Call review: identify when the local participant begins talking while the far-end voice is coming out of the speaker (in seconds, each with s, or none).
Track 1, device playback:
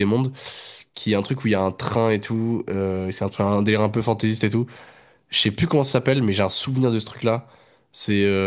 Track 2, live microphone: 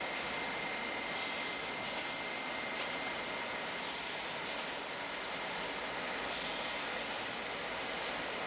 none